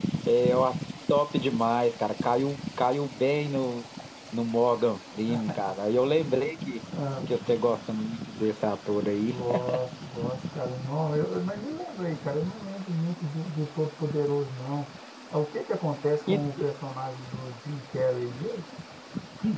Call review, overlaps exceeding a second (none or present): none